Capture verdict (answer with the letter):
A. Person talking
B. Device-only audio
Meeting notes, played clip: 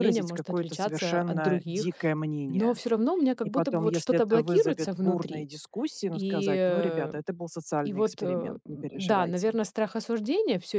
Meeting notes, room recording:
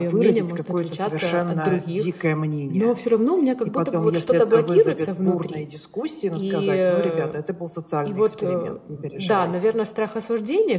B